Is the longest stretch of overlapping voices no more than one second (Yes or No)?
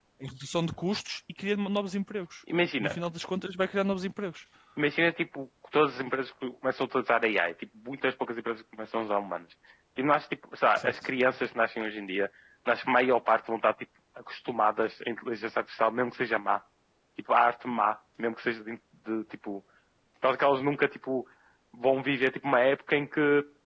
Yes